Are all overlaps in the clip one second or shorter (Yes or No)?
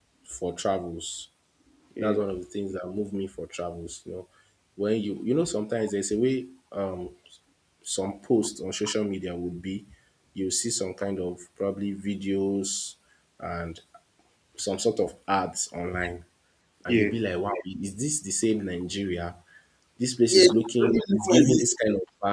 No